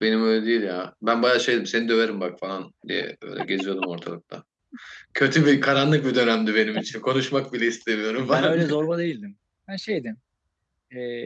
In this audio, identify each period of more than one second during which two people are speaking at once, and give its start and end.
none

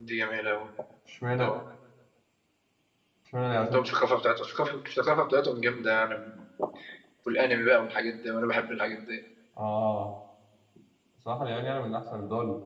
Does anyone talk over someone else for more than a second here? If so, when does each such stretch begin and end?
none

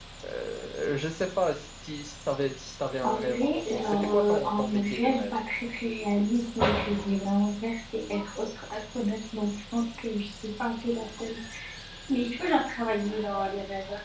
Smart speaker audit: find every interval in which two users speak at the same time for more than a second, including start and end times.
3.0-5.3

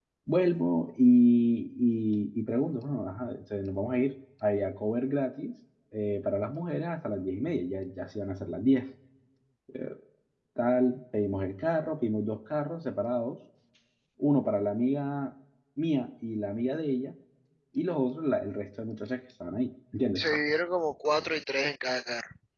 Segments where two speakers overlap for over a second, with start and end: none

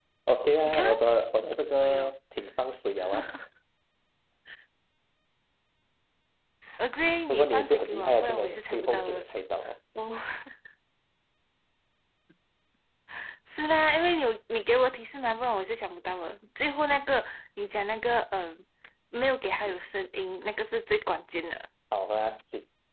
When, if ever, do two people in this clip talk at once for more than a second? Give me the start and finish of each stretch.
7.3-9.2

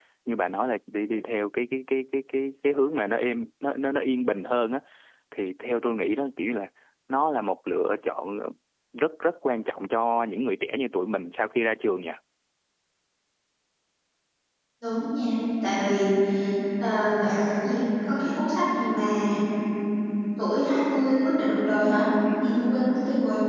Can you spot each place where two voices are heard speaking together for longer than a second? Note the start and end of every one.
none

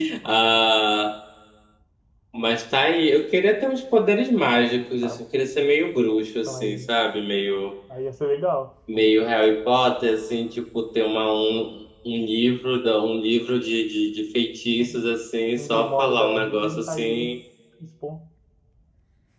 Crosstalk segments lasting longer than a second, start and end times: 15.6-17.4

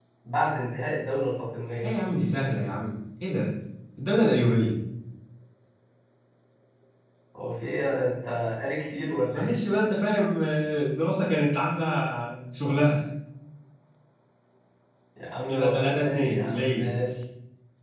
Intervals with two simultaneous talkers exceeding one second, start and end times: 15.5-16.8

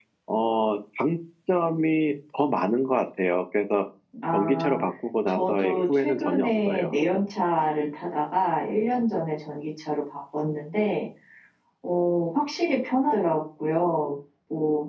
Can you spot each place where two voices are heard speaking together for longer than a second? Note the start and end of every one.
5.3-6.9

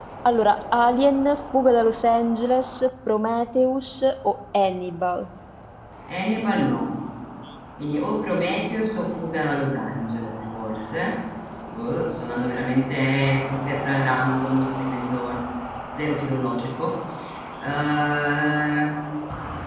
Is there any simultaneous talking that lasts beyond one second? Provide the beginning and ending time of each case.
none

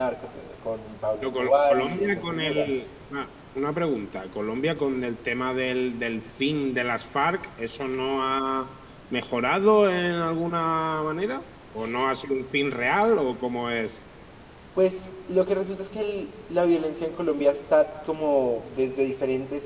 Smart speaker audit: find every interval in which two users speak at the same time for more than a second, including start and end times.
1.2-2.7

